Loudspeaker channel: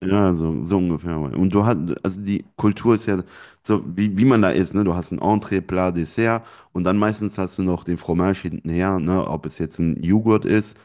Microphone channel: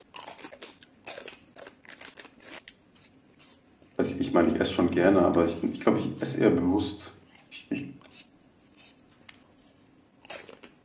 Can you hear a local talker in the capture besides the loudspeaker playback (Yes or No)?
Yes